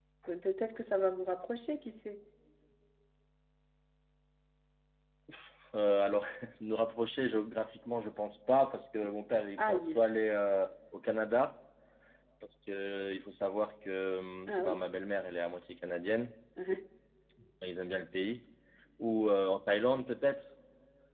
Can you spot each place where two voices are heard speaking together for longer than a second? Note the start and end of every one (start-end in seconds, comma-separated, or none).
none